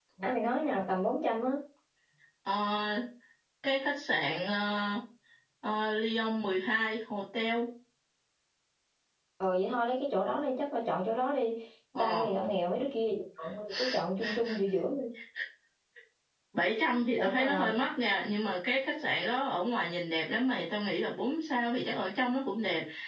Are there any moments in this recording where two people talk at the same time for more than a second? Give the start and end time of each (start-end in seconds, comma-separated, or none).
none